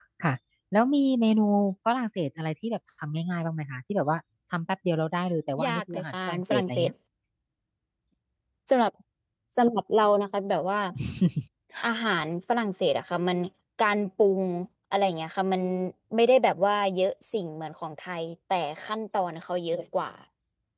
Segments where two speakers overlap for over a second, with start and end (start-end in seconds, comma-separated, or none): 5.7-6.9